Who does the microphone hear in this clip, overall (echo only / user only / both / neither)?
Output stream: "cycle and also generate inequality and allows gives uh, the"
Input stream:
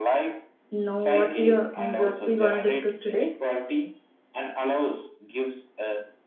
both